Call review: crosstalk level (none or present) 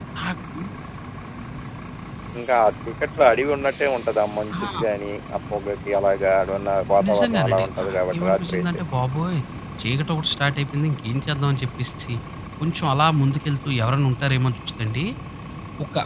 present